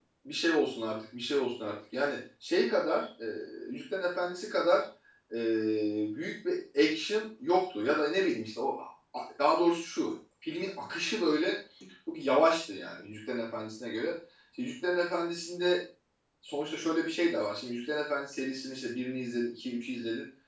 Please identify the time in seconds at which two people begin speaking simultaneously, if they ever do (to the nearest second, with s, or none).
none